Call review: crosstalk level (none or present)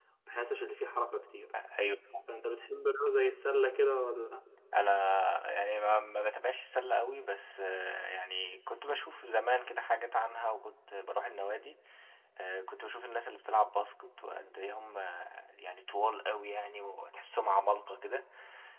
none